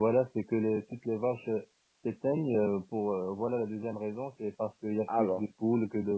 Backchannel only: Yes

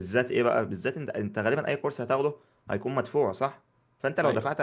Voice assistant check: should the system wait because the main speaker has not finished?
Yes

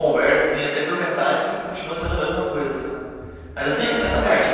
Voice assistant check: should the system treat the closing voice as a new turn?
No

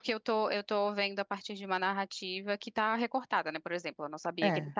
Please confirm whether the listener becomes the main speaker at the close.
No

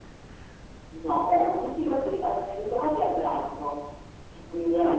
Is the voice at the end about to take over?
No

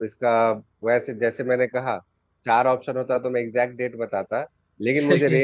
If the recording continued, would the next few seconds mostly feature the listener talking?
No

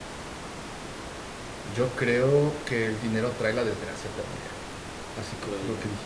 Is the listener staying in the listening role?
Yes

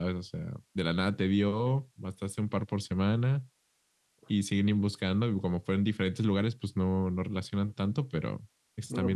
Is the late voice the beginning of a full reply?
Yes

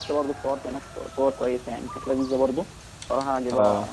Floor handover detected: No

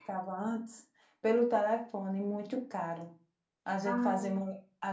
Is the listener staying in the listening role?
Yes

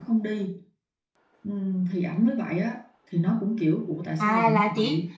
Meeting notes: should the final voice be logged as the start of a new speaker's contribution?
Yes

